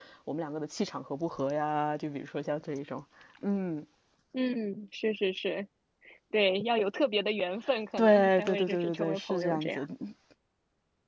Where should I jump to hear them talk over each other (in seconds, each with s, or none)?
8.0 s